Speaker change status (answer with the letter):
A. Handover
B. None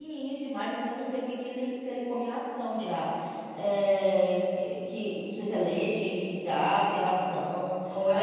A